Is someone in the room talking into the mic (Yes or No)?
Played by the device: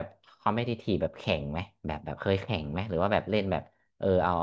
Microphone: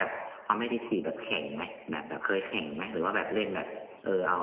No